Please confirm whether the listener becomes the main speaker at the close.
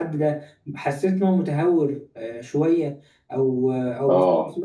No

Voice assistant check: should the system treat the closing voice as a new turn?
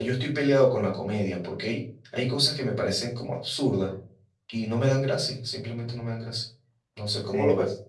Yes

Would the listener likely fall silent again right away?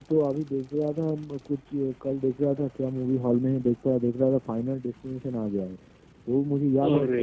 Yes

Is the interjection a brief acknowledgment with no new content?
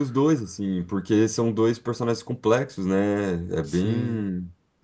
Yes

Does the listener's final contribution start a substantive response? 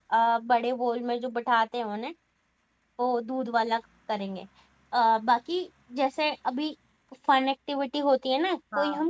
No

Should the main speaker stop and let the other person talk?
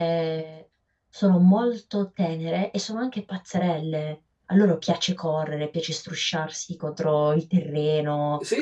No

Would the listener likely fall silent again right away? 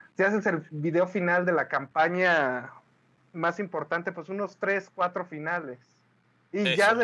Yes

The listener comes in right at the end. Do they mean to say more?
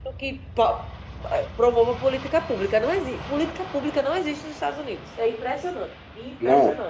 Yes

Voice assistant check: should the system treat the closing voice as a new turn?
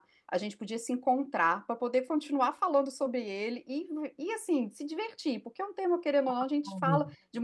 No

